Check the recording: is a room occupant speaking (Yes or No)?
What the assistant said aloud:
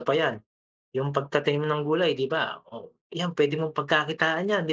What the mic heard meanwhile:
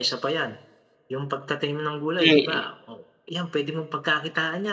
Yes